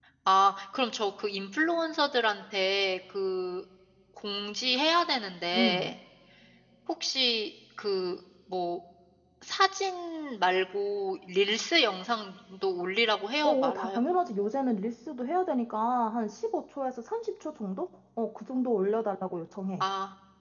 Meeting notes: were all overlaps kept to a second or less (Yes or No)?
Yes